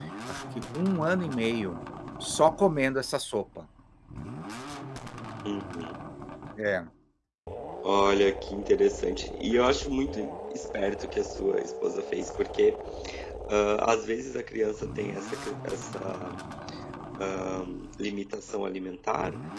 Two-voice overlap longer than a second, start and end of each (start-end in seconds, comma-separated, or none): none